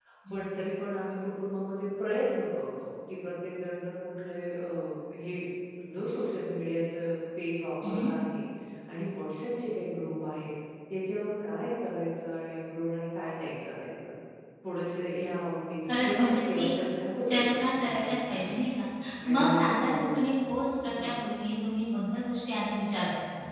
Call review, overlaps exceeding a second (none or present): present